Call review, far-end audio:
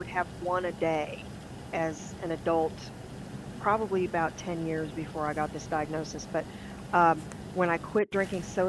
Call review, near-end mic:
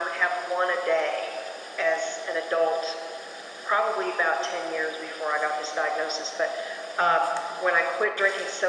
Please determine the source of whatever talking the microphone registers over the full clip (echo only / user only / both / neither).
echo only